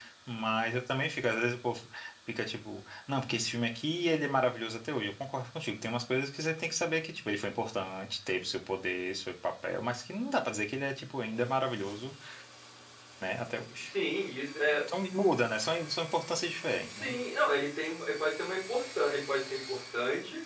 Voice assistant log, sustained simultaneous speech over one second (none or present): none